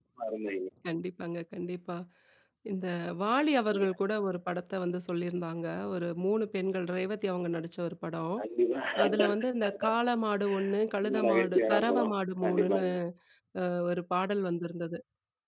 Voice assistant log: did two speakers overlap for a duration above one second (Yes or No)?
Yes